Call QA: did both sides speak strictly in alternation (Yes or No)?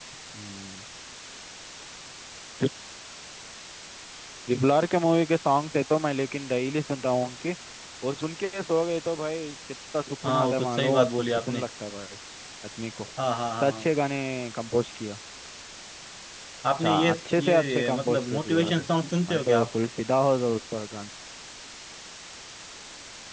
No